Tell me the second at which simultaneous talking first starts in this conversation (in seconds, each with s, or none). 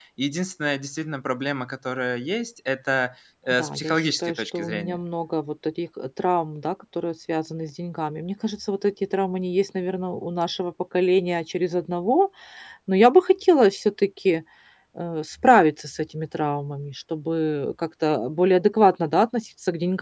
3.5 s